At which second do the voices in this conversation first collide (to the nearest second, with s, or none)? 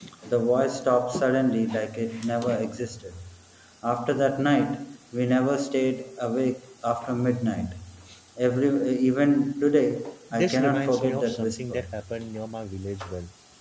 10 s